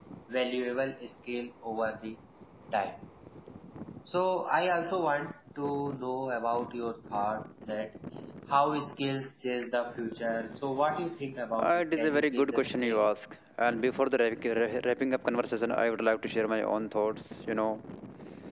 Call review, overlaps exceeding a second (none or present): present